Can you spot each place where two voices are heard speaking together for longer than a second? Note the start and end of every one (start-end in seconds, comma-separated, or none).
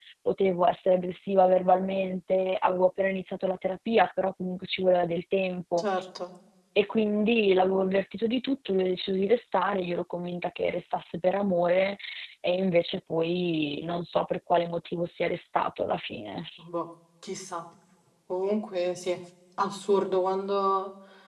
none